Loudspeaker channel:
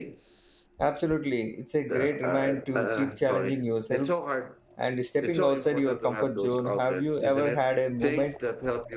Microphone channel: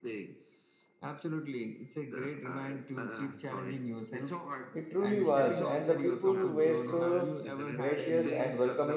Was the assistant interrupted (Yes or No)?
Yes